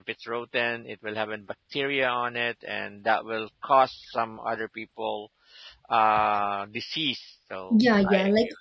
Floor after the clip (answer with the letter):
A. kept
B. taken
B